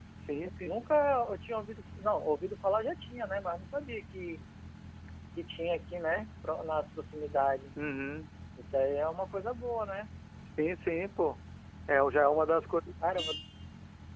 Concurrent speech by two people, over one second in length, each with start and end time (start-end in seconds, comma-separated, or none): none